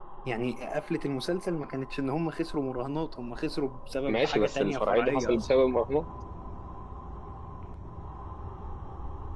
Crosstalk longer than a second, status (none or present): present